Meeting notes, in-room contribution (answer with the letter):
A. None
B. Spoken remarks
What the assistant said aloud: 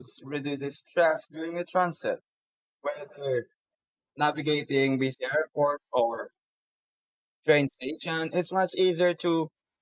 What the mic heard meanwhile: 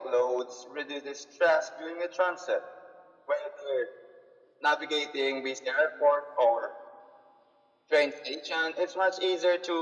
A